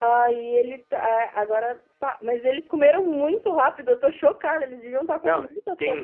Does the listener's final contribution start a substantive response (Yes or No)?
Yes